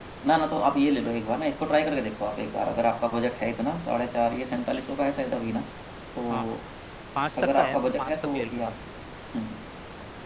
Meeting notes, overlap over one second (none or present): present